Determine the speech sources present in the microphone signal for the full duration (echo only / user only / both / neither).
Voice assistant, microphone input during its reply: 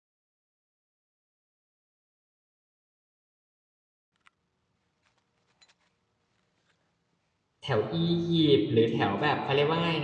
user only